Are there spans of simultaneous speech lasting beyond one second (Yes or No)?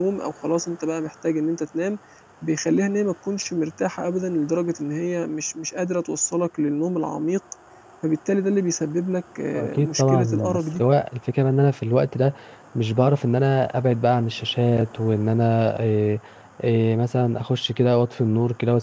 Yes